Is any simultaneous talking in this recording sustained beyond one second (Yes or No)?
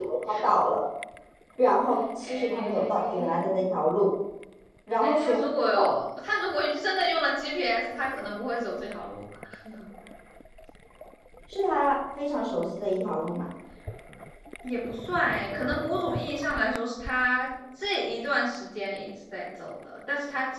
Yes